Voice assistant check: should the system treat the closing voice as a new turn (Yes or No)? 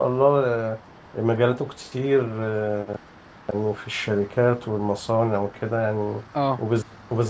No